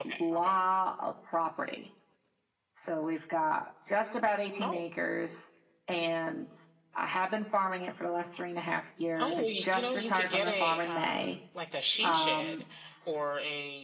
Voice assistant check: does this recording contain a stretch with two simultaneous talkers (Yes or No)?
Yes